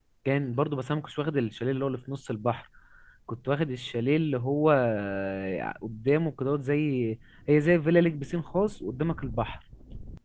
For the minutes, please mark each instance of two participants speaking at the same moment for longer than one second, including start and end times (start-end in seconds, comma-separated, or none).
none